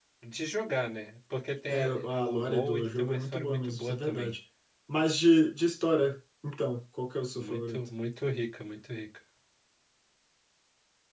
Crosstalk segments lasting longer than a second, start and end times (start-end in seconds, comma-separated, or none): 1.7-4.3